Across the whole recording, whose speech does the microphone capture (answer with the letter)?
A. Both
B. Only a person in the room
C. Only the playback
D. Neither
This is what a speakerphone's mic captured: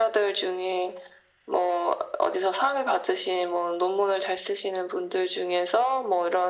C